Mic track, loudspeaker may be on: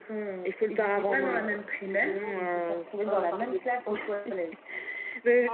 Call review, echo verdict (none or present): present